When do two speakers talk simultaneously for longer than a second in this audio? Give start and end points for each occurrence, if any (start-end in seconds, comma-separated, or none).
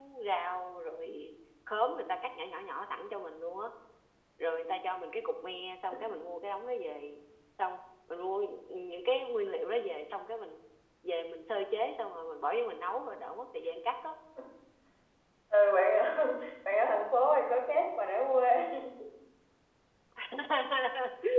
none